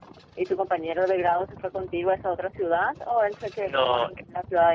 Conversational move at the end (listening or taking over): listening